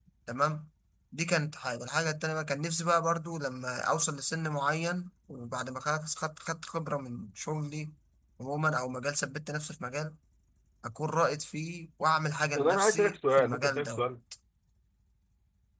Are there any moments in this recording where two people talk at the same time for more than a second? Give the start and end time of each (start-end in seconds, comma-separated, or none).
12.6-14.1